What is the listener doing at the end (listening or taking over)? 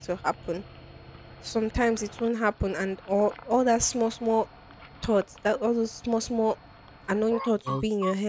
listening